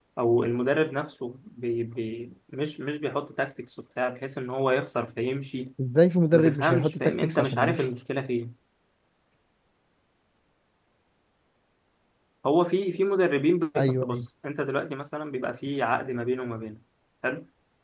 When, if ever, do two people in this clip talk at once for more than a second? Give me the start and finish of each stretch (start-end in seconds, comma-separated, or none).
6.3-7.8